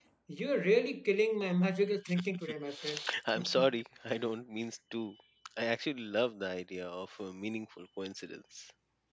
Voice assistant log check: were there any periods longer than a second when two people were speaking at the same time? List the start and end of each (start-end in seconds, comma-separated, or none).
none